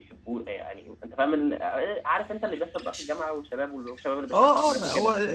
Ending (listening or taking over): taking over